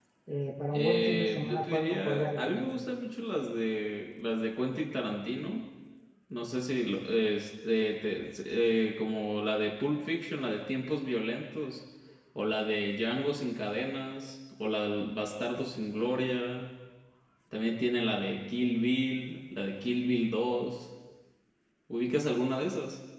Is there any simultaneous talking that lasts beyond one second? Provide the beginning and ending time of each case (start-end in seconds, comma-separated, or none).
0.7-2.7